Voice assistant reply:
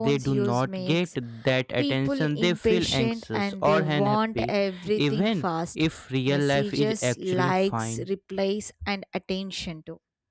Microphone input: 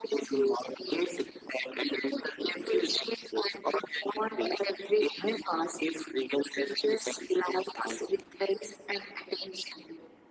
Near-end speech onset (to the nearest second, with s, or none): none